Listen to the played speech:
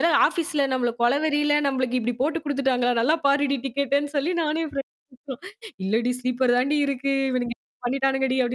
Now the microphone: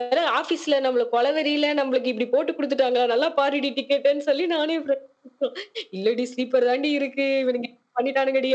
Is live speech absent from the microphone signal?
Yes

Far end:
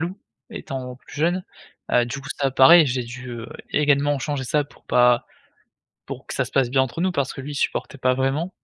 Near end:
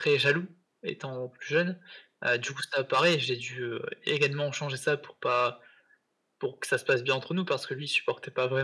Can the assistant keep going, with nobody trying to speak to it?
Yes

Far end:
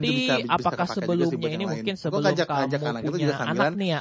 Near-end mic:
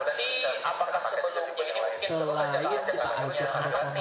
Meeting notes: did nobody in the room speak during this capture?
No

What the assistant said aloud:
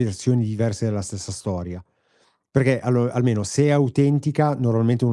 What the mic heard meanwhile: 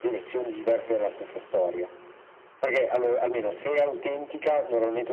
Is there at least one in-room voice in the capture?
No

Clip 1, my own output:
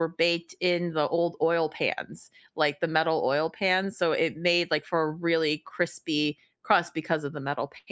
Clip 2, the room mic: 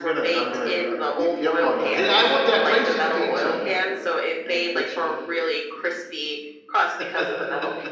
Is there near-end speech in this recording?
Yes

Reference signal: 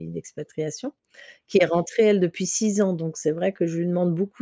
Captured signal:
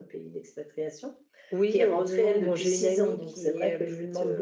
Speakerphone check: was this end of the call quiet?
No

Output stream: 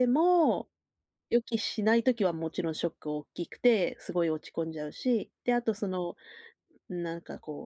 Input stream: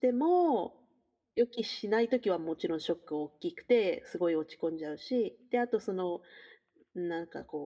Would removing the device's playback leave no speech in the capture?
Yes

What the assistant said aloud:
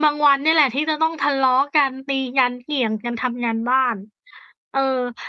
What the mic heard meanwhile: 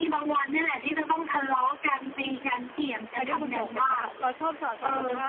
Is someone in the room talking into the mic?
Yes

